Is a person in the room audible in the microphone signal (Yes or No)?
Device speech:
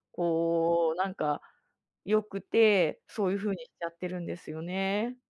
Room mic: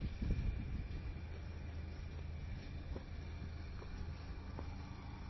No